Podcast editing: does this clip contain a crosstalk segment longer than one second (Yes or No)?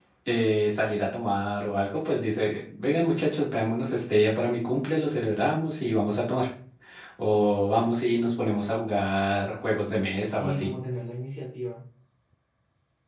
No